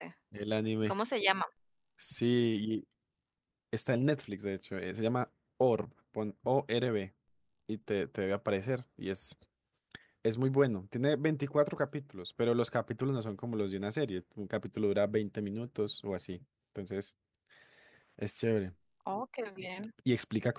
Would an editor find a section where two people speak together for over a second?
No

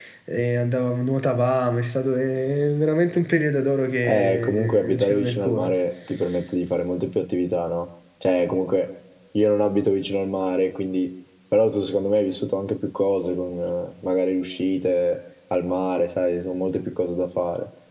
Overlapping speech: Yes, from 4.0 s

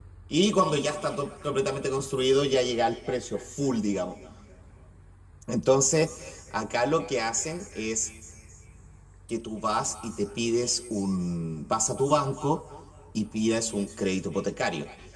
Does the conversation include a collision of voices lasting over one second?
No

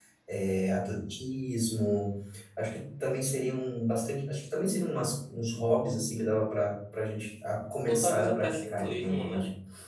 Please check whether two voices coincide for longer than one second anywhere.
Yes, from 7.9 s

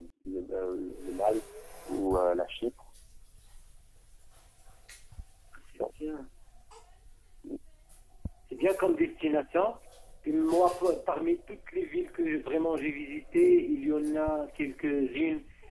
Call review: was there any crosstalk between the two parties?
No

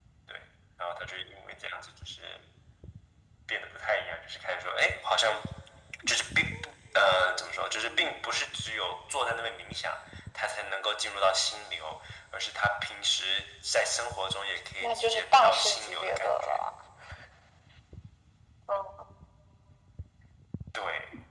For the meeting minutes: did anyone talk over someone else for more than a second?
Yes, from 14.8 s

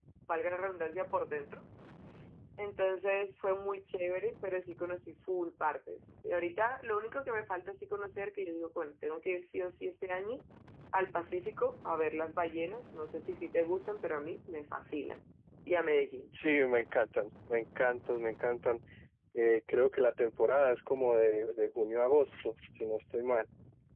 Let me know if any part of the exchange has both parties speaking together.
No

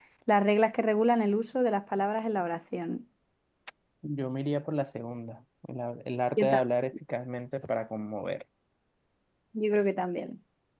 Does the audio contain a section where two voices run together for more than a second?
No

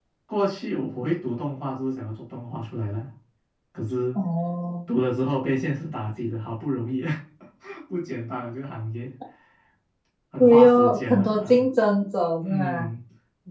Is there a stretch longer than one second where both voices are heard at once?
Yes, from 10.4 s

